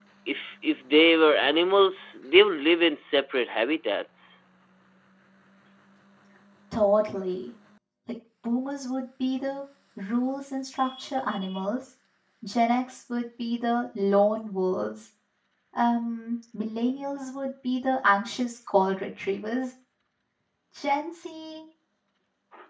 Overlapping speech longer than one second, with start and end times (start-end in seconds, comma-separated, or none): none